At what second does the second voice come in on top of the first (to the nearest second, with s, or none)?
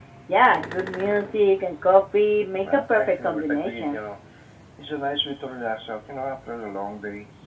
3 s